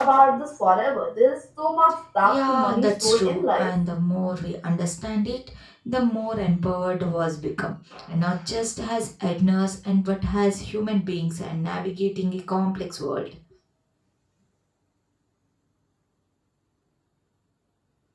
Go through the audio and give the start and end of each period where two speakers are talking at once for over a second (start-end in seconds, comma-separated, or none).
2.2-3.8